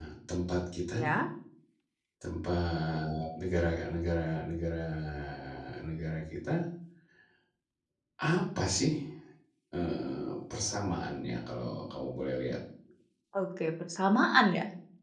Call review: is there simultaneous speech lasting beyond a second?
No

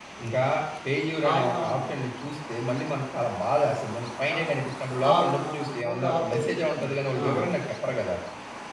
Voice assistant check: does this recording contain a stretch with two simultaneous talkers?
Yes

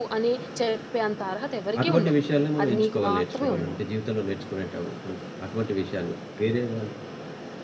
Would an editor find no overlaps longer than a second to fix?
No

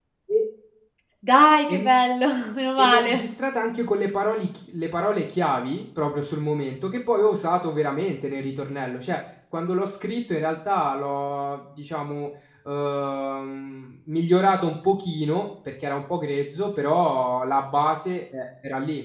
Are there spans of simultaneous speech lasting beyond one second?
No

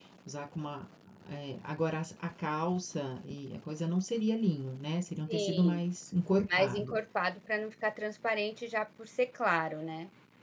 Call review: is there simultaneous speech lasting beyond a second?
No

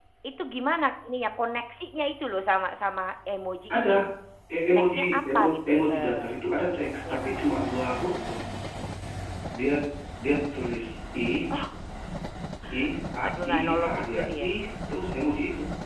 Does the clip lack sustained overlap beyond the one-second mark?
No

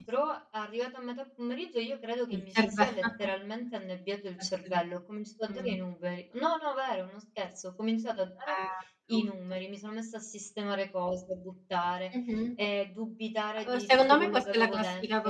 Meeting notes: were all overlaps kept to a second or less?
No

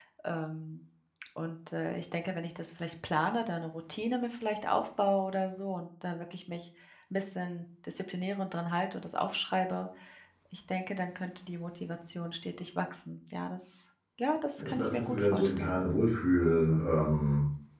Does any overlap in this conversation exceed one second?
Yes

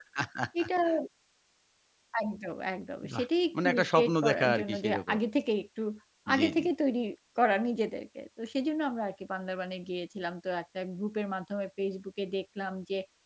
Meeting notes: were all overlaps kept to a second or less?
No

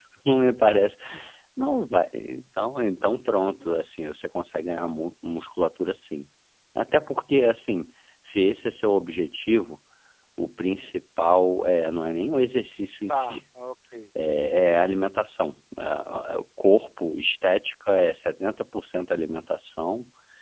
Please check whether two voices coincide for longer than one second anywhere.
No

